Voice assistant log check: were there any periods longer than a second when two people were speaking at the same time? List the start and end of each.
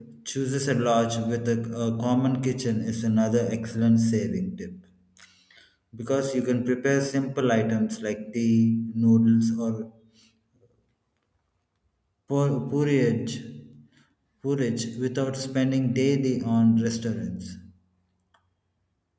none

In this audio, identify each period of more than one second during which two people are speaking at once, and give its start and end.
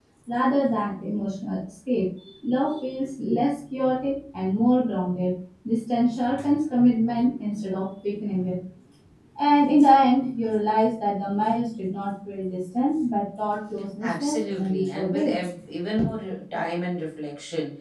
14.0-15.4

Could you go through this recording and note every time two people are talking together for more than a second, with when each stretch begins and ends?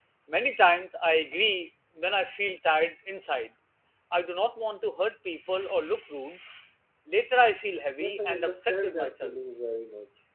8.0-9.4

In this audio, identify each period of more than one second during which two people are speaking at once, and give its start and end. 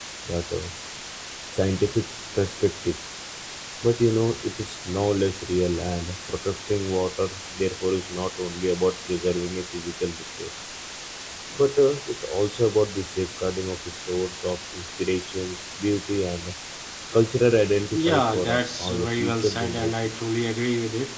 17.9-20.1

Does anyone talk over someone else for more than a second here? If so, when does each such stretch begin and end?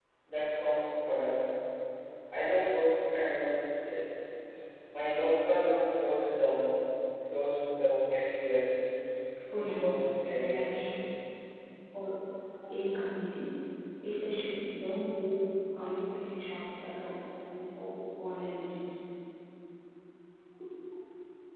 9.5-10.9

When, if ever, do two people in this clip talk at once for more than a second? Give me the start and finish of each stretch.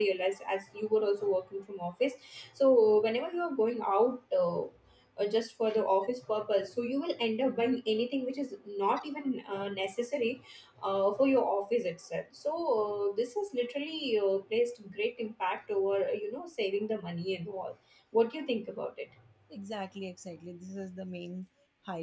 none

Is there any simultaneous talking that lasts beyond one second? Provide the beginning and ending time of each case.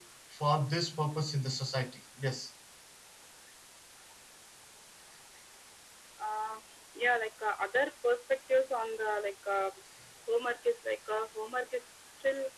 none

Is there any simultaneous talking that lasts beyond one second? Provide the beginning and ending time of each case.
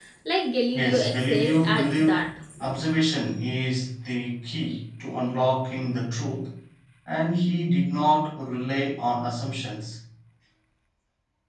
0.7-2.2

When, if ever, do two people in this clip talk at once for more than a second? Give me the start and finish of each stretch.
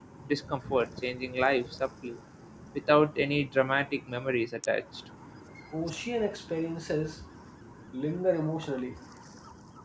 none

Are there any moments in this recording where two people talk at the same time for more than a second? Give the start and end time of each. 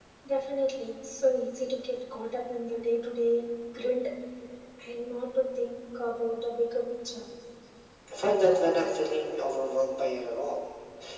none

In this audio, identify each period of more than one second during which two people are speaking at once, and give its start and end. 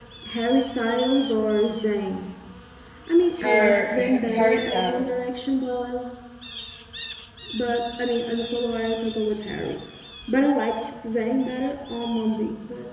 3.4-5.2

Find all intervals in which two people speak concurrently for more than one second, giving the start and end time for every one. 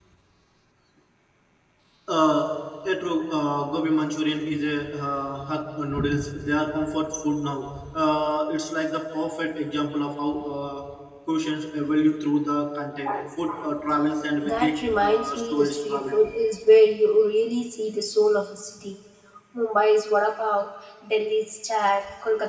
14.4-16.3

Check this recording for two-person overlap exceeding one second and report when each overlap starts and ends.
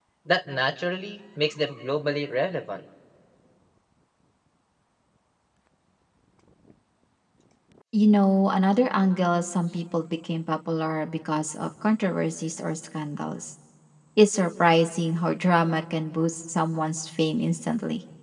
none

